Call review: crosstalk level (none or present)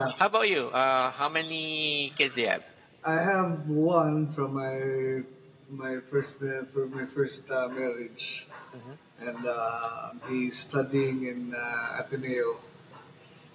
none